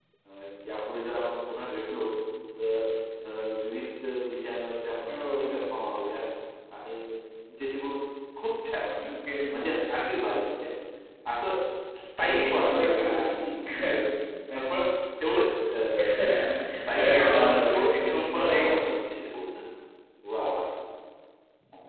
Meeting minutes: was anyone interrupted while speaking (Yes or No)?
Yes